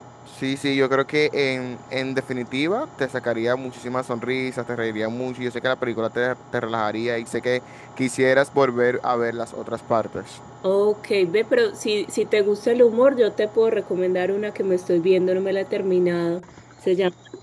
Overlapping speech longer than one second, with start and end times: none

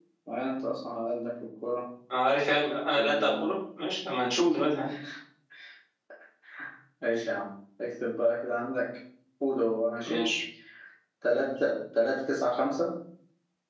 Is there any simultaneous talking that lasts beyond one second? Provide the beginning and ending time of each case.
none

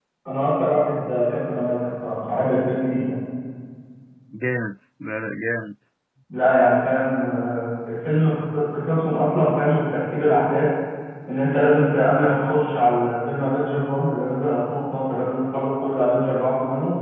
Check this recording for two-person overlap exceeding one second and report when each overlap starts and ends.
none

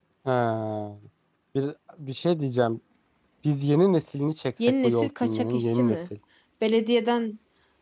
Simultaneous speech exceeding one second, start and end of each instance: 4.6-6.1

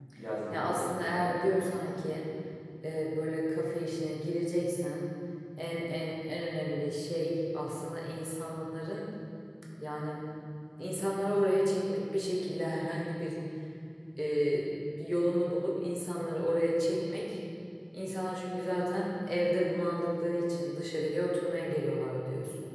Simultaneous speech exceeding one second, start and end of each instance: 0.5-2.2

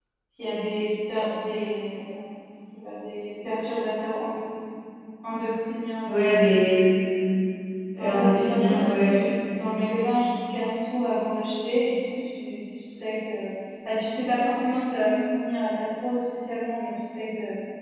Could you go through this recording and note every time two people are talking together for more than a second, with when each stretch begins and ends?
8.0-9.2

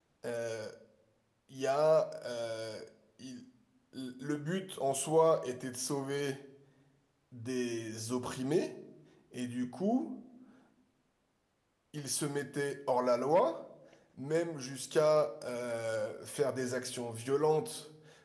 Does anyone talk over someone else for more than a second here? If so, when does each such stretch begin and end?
none

